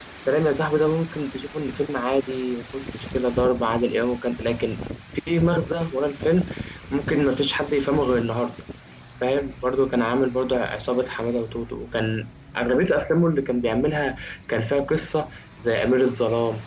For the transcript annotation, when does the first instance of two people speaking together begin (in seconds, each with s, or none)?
none